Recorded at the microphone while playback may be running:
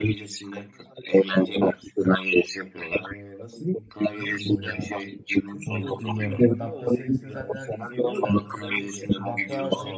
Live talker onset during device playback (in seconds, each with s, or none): 4.1 s